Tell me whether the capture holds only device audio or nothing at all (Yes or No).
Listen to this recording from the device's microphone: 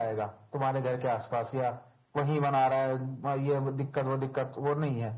Yes